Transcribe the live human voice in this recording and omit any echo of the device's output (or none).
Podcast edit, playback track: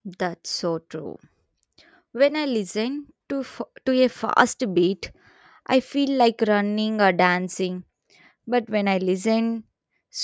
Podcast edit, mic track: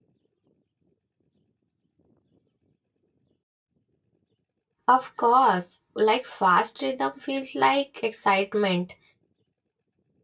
Of course, like fast rhythm feels like excitement,